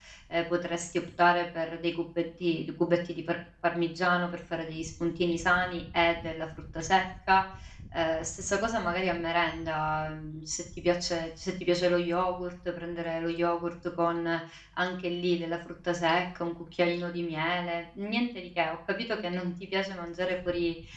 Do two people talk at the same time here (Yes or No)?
No